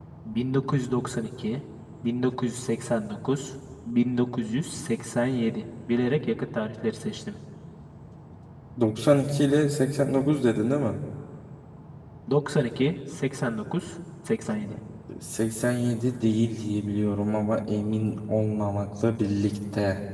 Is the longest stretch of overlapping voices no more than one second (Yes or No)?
Yes